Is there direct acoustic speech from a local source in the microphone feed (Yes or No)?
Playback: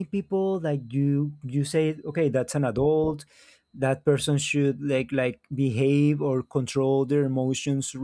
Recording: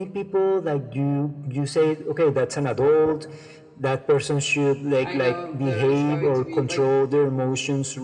Yes